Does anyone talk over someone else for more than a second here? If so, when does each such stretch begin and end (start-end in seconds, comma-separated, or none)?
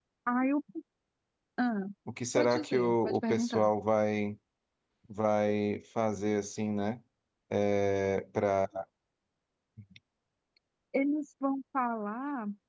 2.4-3.7